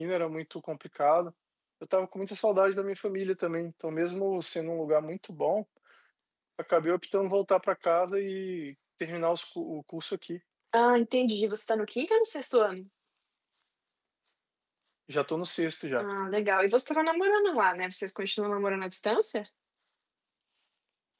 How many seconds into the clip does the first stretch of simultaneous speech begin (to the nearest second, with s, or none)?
none